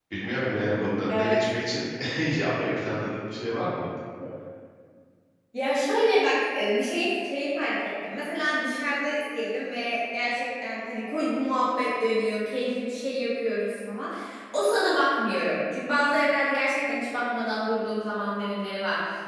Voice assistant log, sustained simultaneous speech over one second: none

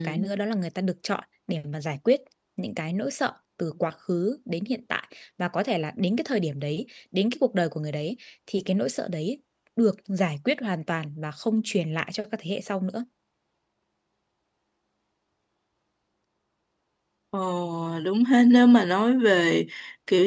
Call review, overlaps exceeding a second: none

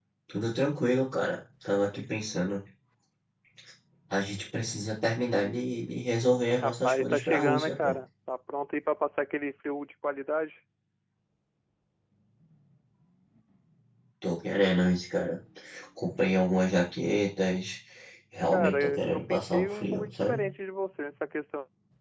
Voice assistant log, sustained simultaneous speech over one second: present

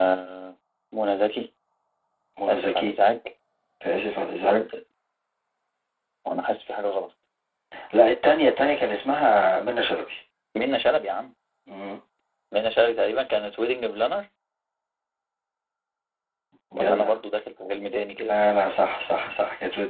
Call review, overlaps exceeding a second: none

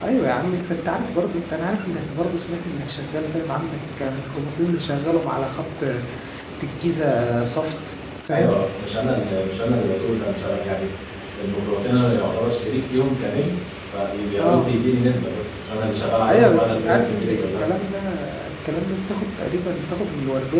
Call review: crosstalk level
present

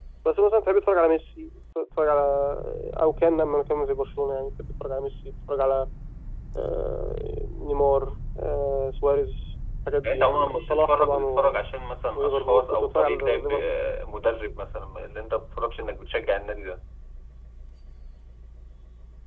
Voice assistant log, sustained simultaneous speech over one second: present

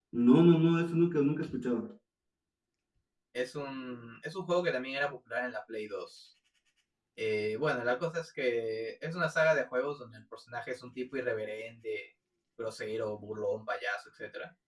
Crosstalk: none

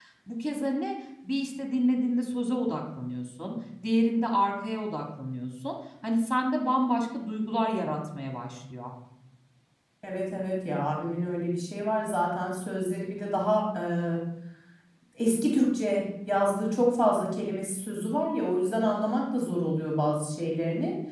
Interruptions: none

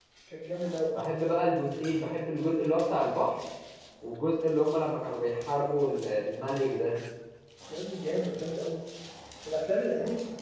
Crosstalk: none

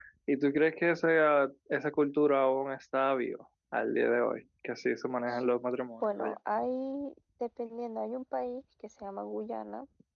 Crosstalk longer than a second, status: none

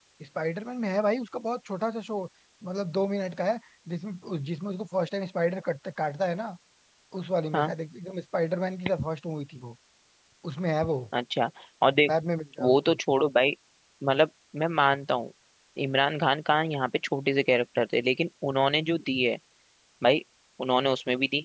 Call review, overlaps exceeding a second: none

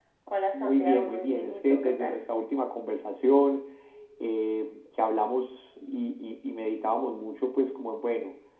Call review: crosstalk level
present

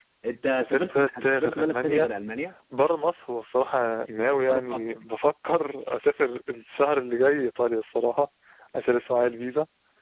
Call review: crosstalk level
present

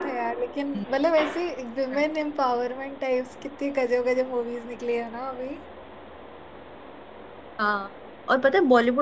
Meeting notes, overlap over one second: none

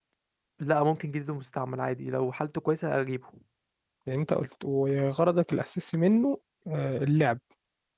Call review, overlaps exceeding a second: none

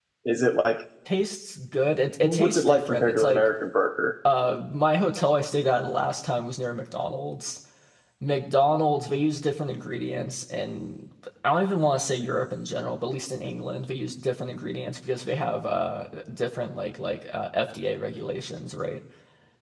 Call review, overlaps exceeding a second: present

